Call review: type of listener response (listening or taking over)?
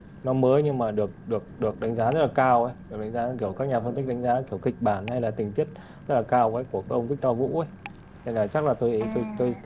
listening